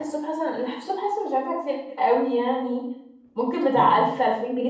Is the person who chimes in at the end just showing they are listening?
Yes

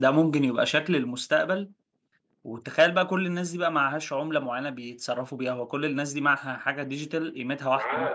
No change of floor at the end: No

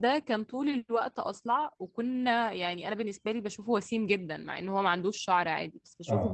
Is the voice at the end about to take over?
No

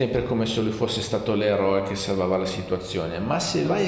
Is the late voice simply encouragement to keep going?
Yes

